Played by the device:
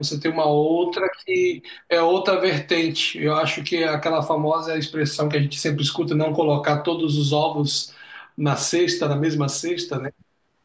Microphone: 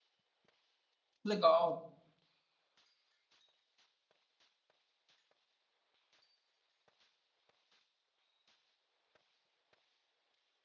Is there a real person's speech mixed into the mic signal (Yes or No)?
Yes